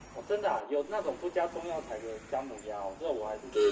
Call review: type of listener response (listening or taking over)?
taking over